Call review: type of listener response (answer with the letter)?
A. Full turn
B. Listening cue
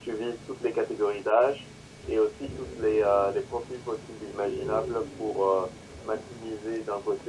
B